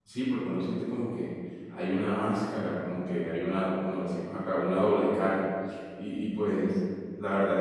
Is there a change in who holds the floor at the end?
No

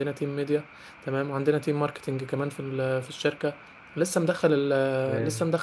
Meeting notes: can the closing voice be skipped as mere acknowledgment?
Yes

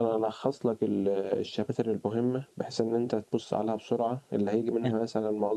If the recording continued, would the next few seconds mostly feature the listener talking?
No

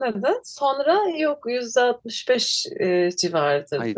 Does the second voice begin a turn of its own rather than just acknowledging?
Yes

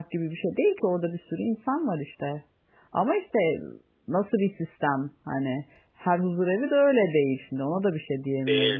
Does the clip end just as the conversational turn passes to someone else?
Yes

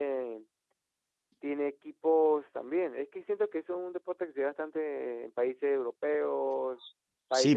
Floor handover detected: Yes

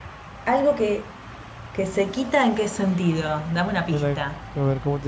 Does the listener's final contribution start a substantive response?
Yes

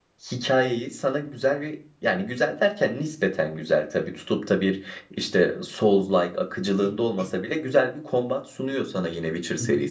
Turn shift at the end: Yes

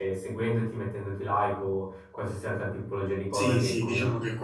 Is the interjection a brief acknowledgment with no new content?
No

